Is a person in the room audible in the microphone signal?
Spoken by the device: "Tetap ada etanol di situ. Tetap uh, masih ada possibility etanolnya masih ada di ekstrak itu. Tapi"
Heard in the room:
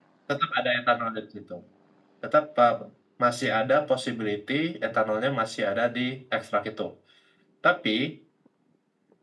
No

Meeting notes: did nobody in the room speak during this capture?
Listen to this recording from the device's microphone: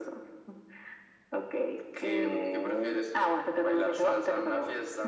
Yes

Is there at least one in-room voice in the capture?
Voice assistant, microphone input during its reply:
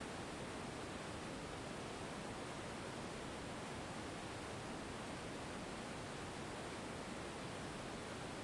No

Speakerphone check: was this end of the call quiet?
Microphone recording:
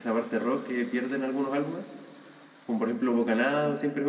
Yes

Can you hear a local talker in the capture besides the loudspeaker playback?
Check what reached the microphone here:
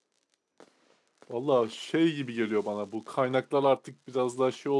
Yes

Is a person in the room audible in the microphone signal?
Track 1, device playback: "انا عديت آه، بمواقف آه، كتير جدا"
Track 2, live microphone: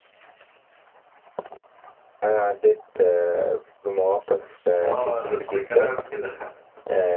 Yes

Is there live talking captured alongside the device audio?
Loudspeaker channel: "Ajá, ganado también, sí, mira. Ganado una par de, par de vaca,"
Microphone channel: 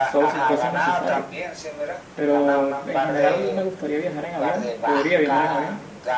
Yes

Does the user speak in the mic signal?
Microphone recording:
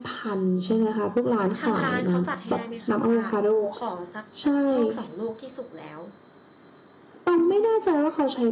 Yes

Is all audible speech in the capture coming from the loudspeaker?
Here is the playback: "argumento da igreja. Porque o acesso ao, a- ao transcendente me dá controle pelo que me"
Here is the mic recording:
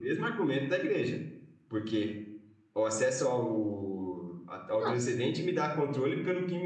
No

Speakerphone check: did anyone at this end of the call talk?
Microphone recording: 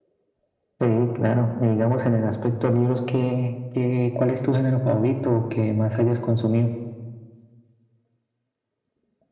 No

